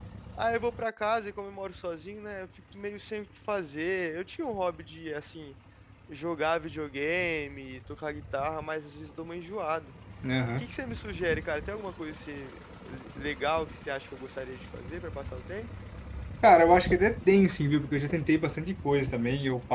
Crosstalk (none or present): none